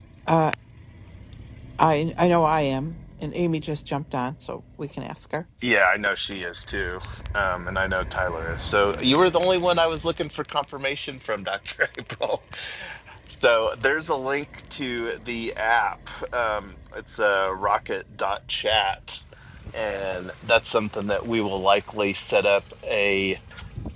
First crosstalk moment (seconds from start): none

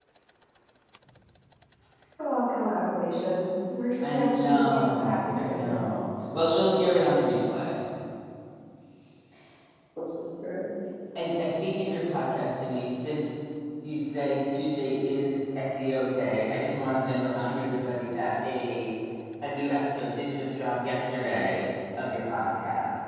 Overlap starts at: 4 s

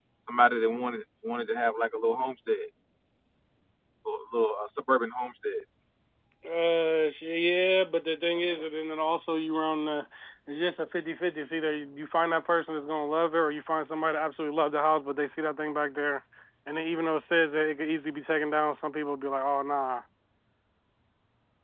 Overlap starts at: none

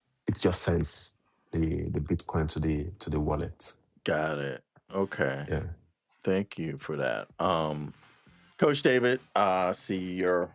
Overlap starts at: none

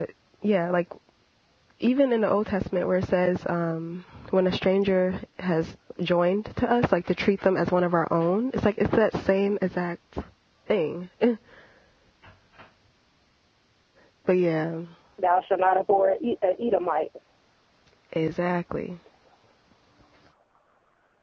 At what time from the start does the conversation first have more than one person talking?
none

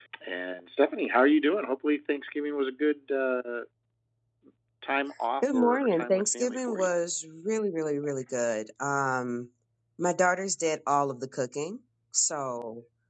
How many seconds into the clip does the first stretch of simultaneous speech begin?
5 s

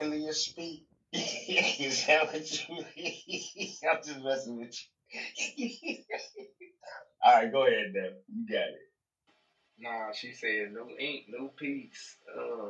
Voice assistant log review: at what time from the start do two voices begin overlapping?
none

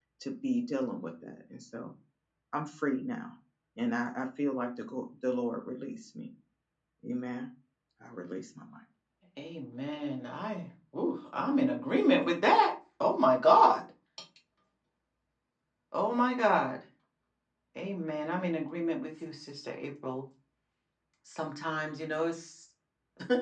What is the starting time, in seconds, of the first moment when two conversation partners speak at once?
none

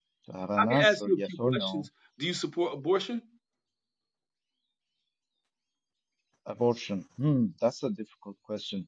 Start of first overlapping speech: 1 s

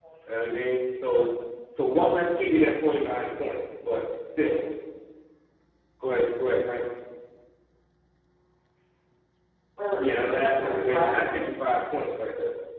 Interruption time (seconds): 10 s

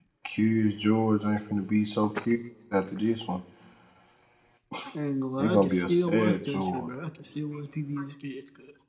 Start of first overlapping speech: 5 s

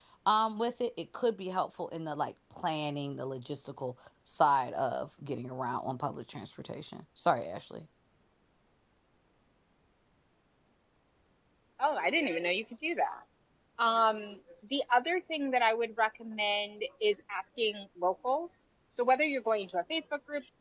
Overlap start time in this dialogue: none

